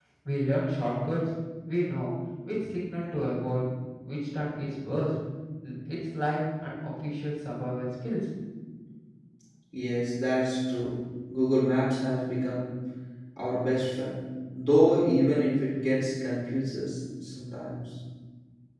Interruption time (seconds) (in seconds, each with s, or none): none